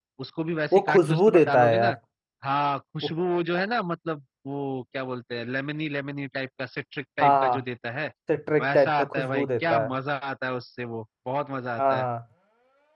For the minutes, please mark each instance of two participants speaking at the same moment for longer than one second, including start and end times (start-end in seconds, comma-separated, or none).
0.7-2.0, 8.6-9.9